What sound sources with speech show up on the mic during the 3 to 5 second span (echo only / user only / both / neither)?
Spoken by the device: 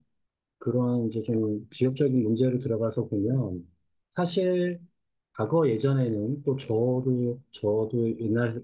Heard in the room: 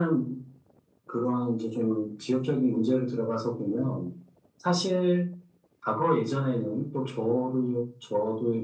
echo only